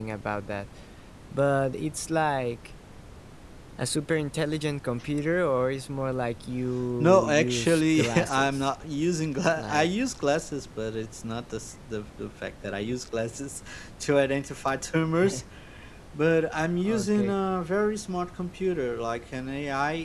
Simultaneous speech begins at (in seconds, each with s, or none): 7.0 s